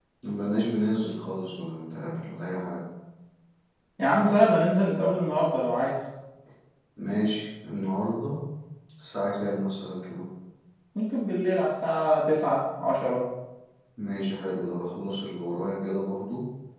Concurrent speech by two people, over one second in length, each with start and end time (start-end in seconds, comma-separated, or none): none